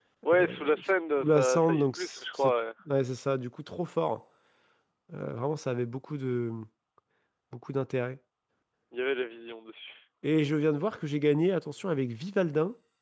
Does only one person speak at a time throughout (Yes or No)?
No